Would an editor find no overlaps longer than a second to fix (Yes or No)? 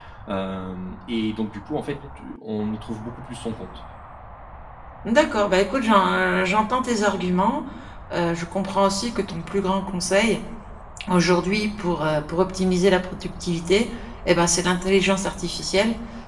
Yes